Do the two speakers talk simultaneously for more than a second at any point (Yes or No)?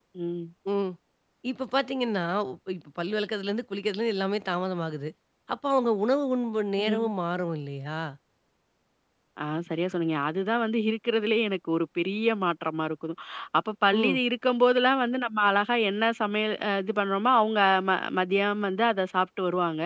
No